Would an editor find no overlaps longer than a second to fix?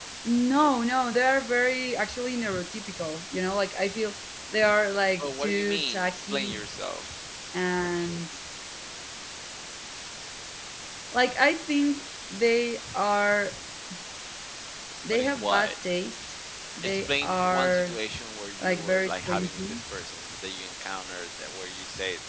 No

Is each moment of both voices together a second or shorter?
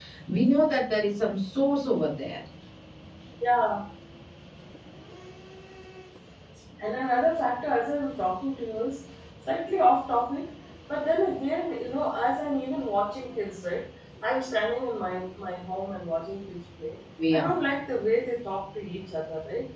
Yes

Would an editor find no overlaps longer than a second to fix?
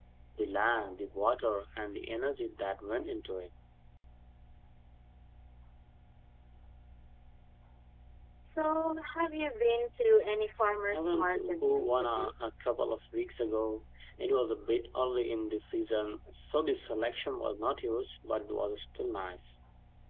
No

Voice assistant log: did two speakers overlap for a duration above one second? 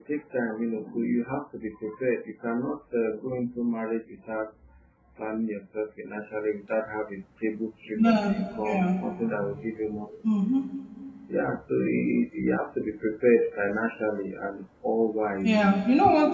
No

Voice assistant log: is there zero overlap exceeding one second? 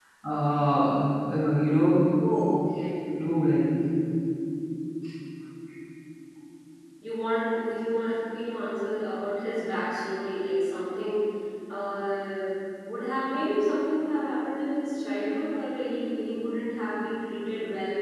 Yes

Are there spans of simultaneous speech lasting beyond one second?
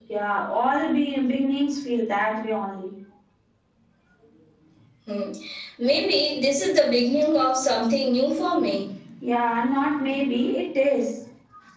No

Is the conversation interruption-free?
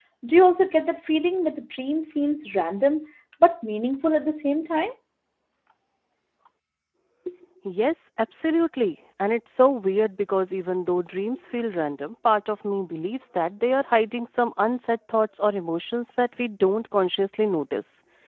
Yes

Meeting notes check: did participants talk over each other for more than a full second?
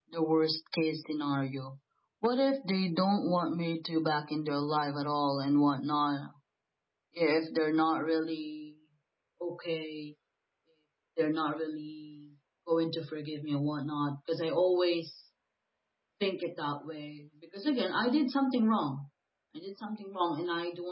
No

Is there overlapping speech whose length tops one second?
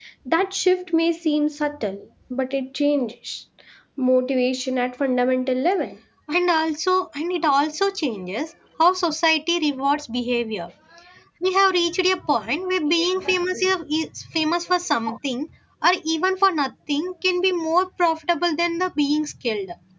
No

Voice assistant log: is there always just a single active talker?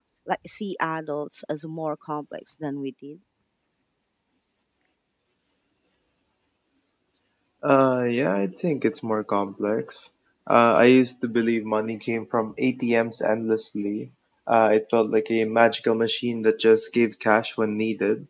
Yes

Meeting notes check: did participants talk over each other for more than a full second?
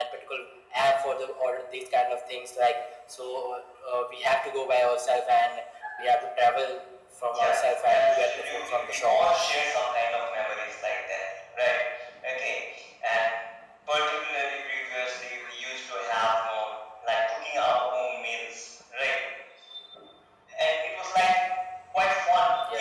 Yes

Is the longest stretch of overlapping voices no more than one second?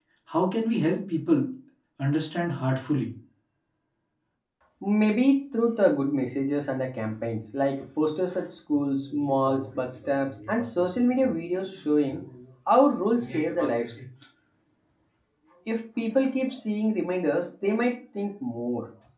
Yes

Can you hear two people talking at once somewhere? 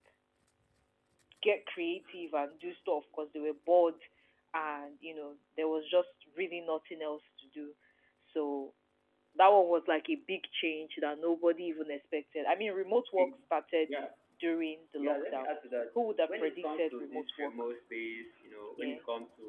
Yes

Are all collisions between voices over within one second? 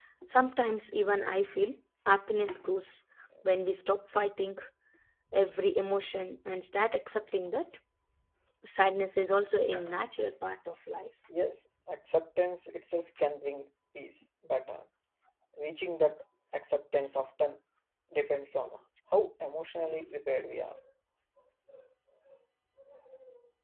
Yes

